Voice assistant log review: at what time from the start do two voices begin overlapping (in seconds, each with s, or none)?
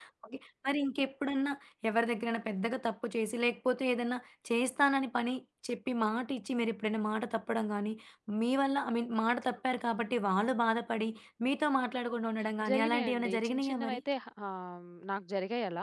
12.6 s